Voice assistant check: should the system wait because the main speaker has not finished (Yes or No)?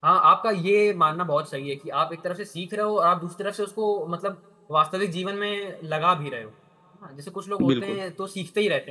Yes